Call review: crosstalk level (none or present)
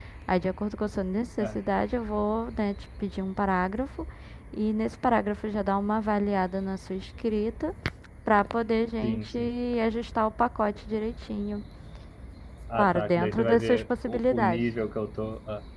present